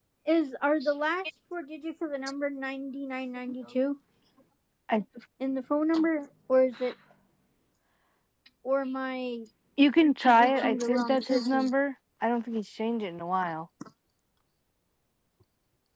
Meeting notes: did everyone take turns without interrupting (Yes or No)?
No